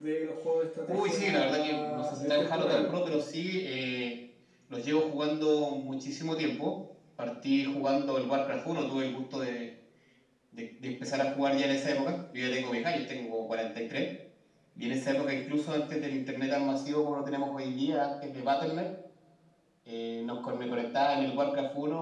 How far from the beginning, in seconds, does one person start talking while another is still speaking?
0.9 s

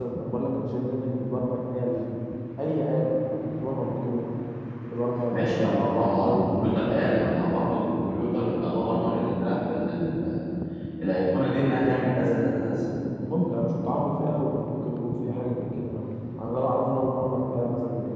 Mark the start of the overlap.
5.3 s

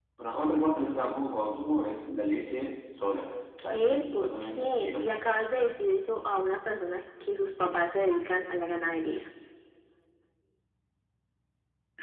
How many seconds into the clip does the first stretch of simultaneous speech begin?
3.6 s

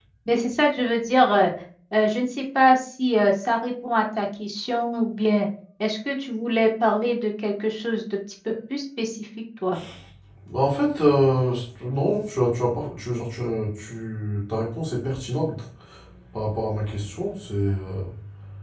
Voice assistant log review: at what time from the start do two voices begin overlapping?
none

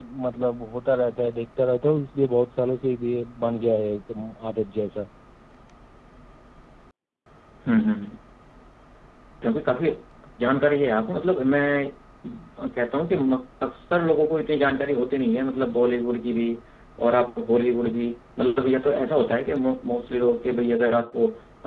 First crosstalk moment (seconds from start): none

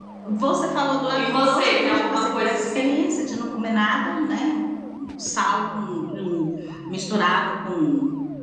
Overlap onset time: 1.1 s

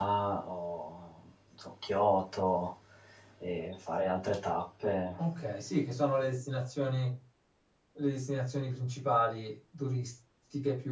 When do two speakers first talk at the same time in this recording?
none

